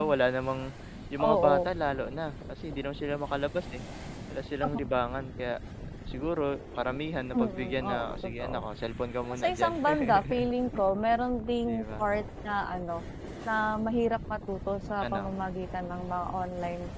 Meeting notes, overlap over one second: present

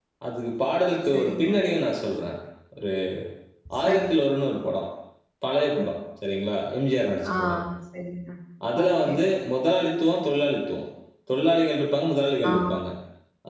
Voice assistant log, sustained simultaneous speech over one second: none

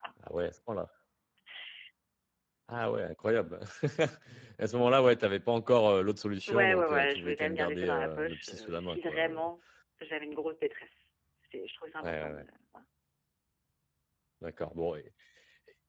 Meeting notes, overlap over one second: present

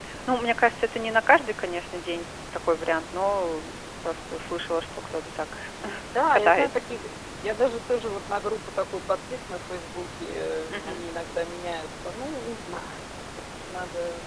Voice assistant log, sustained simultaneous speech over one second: none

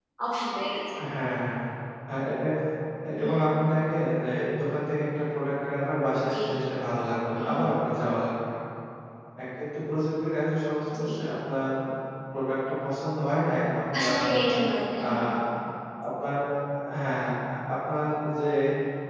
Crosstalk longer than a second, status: none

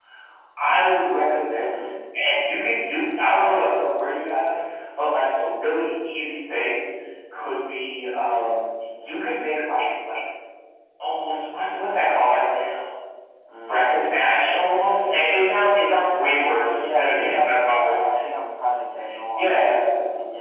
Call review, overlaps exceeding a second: present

